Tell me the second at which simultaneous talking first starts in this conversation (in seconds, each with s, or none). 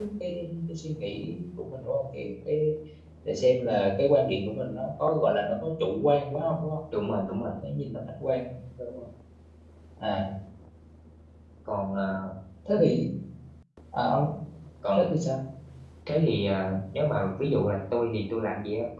none